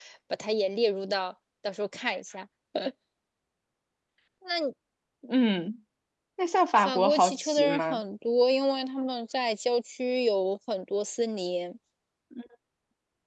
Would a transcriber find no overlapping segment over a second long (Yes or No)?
No